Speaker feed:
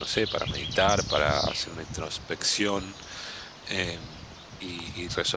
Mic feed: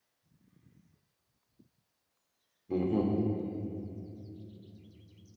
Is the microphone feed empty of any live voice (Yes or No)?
No